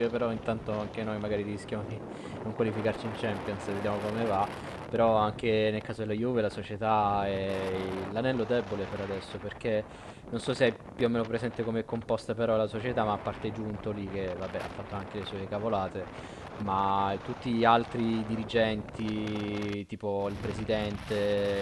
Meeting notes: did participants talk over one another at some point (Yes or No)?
No